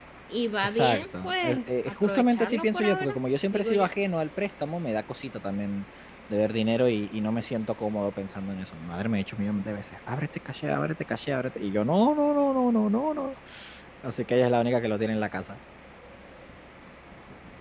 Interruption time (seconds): 0.6 s

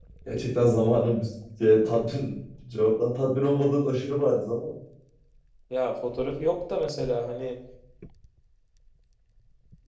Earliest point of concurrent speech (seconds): none

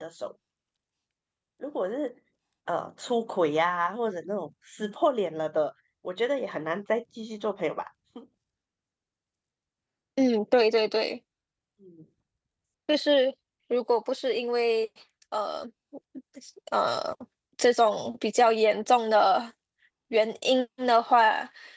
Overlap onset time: none

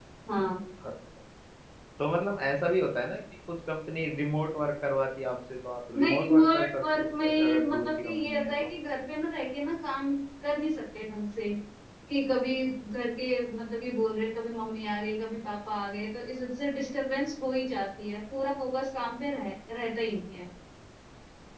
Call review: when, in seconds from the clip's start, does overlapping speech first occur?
5.9 s

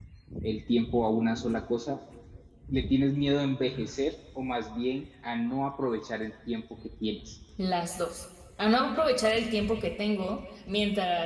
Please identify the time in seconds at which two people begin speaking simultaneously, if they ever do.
none

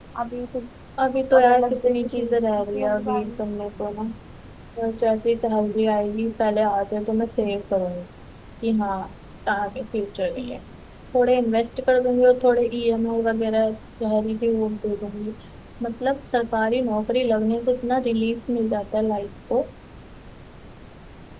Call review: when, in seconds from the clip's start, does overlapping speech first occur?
1.4 s

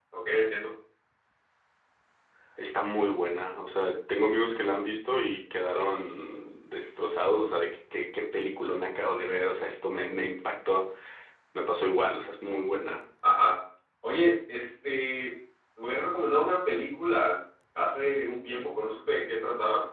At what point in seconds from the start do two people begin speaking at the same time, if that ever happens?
none

